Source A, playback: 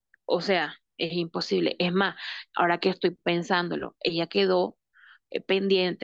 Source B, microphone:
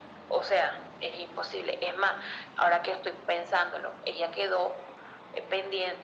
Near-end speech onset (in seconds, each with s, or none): none